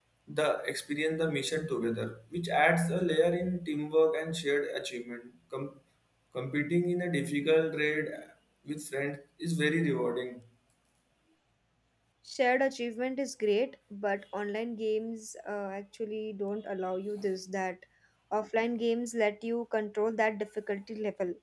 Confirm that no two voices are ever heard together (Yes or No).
Yes